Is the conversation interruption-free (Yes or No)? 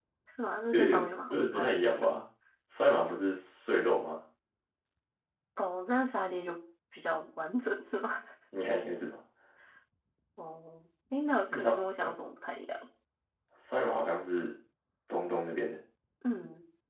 No